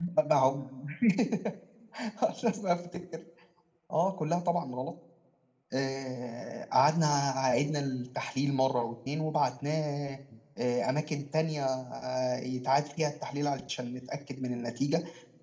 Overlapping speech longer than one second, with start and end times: none

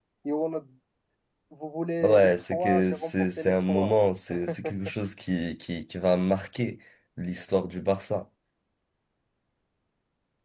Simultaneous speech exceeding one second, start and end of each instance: 2.0-3.9

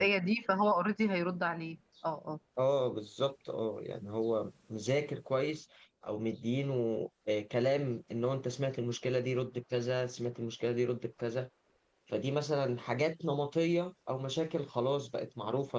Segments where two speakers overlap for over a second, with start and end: none

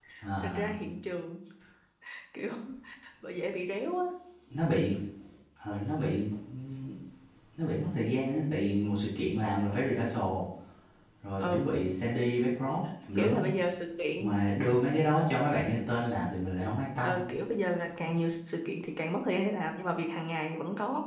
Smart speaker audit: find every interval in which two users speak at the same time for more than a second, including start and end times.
none

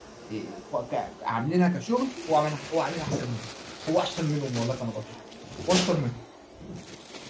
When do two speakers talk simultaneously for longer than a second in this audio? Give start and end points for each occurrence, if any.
none

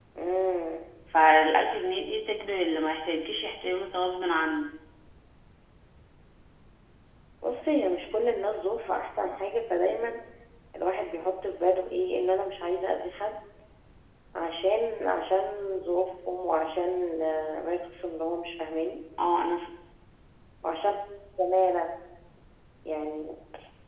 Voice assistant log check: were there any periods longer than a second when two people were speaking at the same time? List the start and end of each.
none

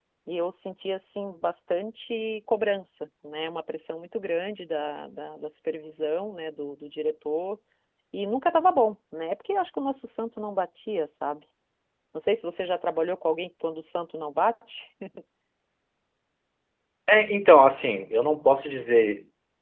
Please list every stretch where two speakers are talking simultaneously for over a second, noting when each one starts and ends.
none

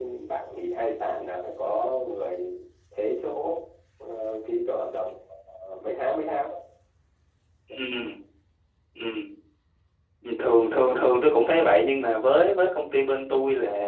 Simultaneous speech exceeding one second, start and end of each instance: none

